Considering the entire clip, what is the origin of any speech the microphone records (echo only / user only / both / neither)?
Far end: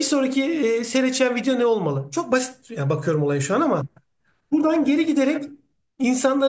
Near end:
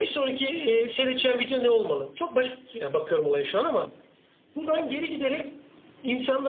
echo only